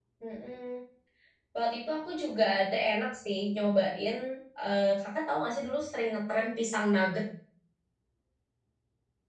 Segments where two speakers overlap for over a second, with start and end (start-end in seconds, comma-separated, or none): none